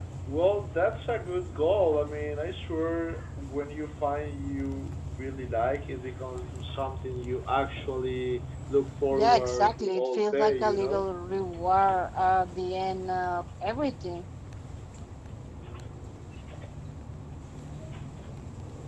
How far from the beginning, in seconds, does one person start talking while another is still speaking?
9 s

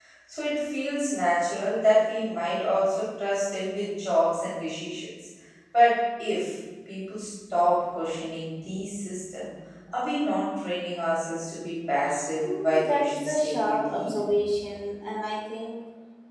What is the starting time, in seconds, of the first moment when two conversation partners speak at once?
12 s

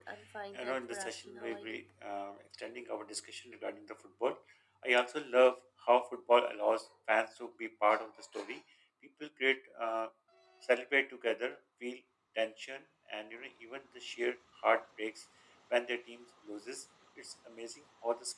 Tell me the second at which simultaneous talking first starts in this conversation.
1 s

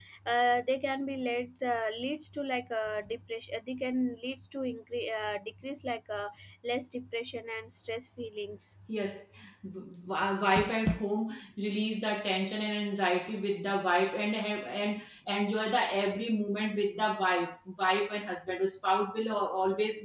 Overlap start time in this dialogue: none

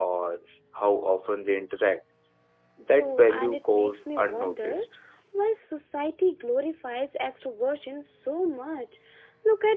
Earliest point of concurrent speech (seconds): 3 s

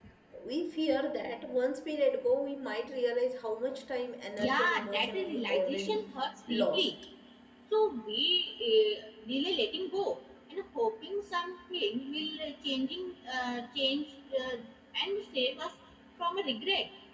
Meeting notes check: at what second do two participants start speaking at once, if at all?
4 s

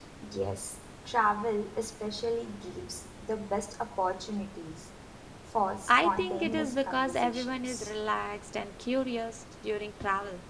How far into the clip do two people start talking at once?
6 s

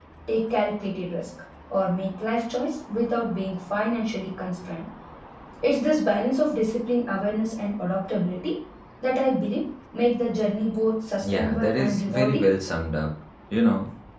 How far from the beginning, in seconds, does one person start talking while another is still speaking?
11 s

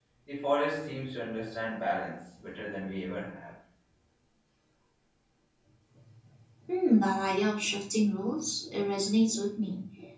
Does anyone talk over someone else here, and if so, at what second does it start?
none

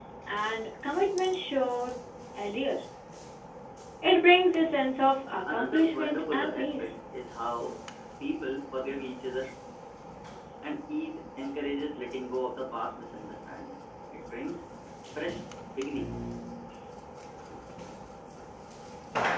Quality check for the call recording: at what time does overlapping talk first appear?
5 s

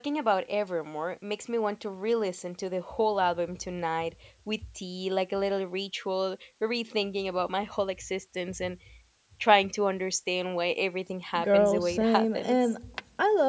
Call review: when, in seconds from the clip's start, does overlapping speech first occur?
11 s

